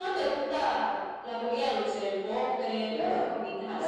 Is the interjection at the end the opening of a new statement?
Yes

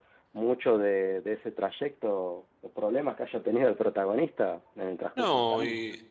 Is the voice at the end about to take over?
Yes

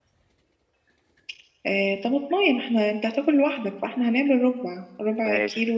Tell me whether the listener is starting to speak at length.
Yes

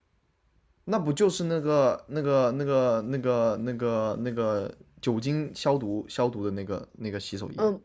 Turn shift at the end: Yes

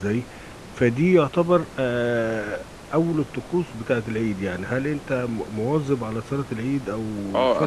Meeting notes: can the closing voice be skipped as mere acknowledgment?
No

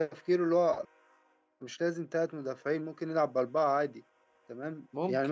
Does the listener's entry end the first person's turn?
No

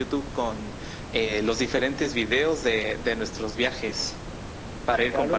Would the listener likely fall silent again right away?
No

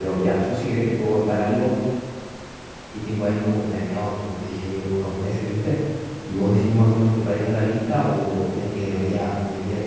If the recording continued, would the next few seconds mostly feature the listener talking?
No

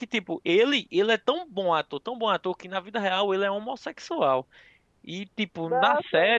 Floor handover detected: No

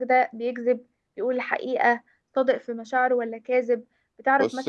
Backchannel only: Yes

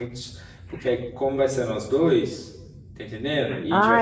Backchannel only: No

